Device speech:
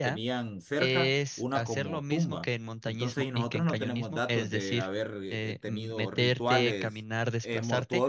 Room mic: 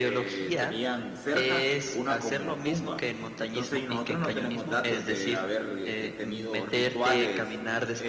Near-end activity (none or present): none